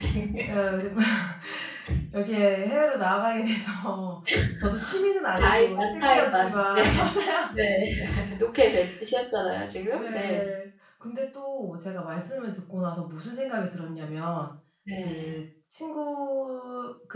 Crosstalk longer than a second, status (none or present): present